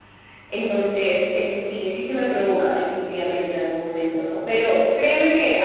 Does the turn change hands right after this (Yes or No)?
No